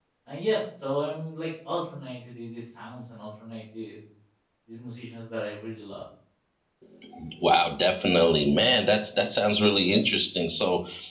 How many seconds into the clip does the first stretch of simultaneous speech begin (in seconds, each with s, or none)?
none